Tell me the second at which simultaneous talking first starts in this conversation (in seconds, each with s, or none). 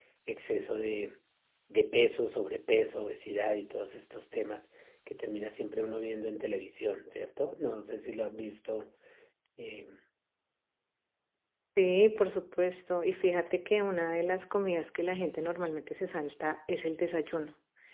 none